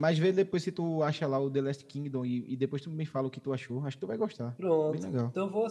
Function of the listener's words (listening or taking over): taking over